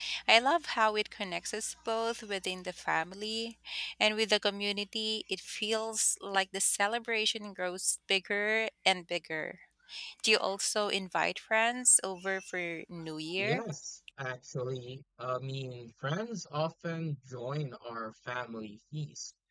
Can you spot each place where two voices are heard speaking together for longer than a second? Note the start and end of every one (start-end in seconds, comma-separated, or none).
none